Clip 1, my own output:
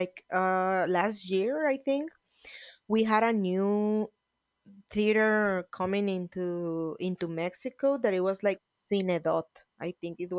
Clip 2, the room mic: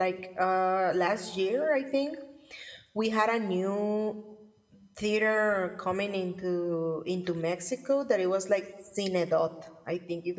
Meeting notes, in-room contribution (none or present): none